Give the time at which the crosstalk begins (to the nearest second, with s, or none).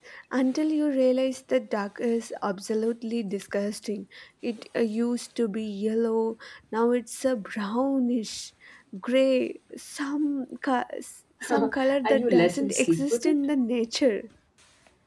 12 s